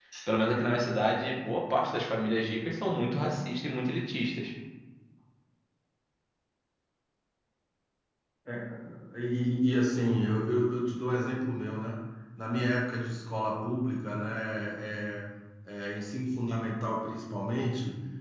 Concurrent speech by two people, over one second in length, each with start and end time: none

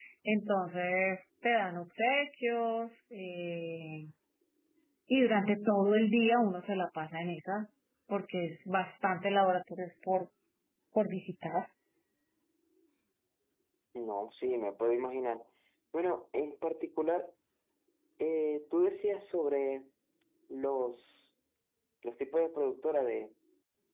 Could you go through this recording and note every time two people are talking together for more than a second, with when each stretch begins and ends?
none

